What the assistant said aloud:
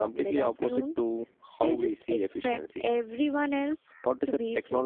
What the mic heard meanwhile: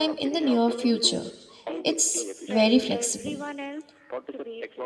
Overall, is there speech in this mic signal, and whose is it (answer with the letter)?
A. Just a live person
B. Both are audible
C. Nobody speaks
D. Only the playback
B